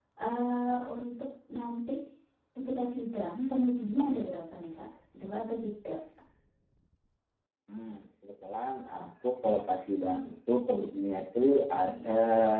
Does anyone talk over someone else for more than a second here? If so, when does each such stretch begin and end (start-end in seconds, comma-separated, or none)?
none